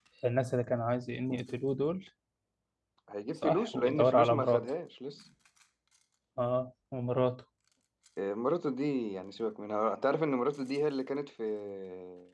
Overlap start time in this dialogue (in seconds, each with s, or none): 3.4 s